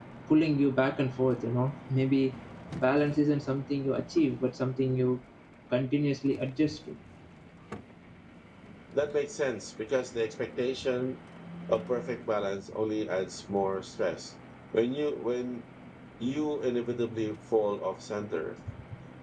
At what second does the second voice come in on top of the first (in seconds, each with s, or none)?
none